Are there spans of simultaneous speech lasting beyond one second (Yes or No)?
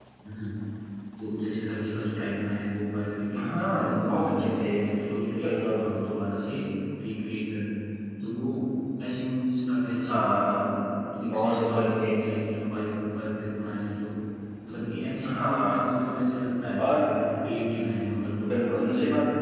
Yes